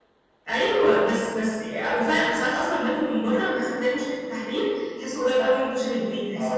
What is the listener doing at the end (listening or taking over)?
taking over